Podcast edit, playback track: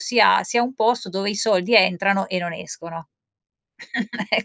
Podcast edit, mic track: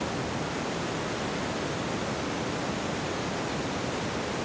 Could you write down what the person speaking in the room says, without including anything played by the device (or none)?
none